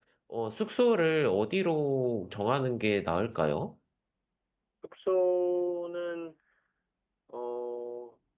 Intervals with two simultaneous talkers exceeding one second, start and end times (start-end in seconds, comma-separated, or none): none